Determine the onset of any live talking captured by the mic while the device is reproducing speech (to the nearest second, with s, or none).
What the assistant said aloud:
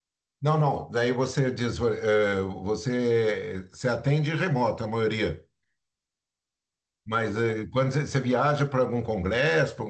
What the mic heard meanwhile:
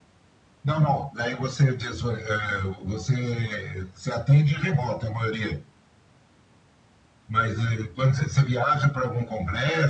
none